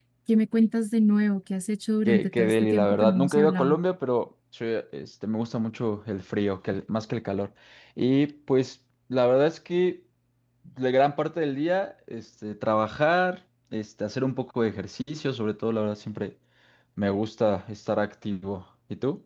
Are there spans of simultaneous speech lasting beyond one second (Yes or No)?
Yes